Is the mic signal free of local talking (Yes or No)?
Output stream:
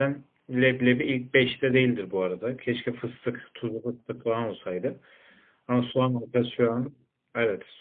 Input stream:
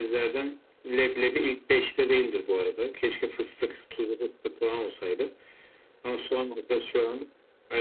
Yes